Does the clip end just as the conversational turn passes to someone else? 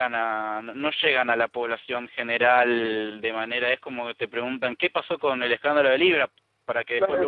Yes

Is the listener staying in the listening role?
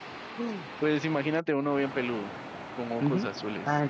No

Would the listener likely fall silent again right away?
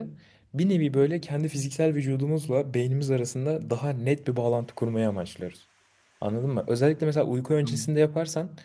Yes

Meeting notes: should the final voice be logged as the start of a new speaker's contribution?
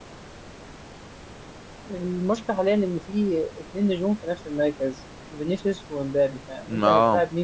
No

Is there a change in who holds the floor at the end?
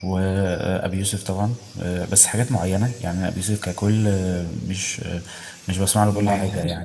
Yes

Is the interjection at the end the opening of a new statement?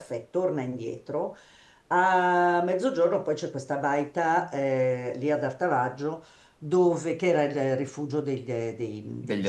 No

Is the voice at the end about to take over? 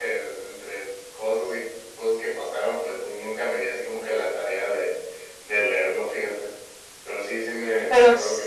Yes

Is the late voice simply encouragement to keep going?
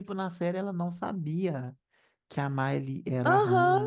No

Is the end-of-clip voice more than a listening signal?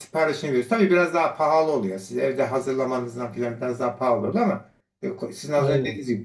No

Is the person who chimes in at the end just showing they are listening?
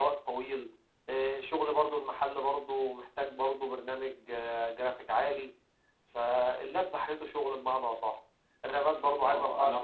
No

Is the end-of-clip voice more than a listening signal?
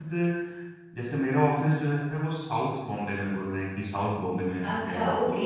Yes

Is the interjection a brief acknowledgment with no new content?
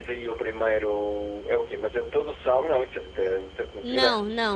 No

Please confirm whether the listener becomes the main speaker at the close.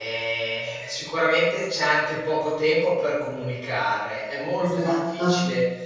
No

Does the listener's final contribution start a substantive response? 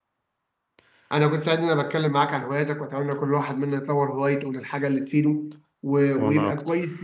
No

